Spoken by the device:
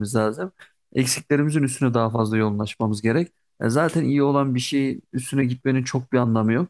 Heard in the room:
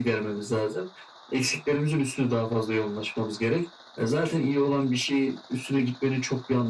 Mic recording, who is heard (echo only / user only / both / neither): echo only